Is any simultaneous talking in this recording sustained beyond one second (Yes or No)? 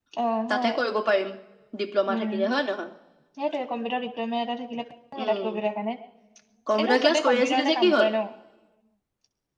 Yes